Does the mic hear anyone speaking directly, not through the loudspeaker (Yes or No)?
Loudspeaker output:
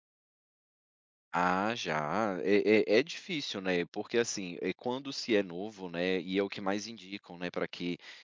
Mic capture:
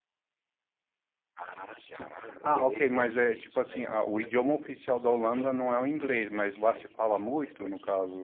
Yes